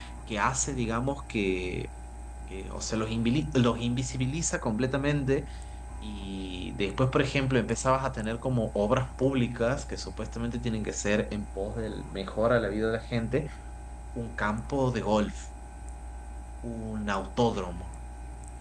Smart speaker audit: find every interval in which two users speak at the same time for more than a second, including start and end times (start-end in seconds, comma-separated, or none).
none